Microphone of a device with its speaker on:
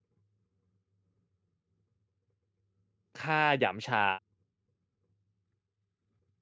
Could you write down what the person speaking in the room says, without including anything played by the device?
ฆ่าหยำฉา

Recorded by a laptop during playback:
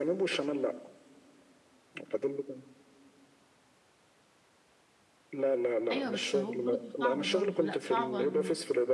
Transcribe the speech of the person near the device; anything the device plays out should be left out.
ايوه بس هو برضو صعبه برضو لا صعبه لان

